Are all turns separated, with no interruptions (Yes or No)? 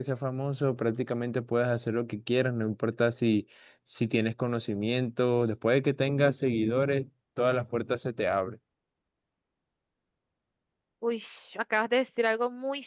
Yes